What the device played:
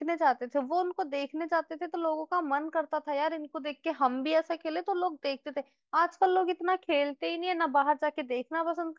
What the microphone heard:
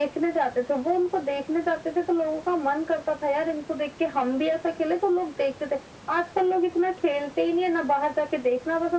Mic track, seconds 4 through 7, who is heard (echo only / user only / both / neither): echo only